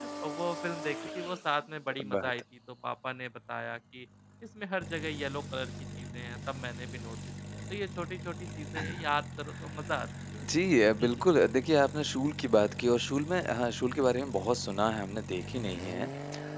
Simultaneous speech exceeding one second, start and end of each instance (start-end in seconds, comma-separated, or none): none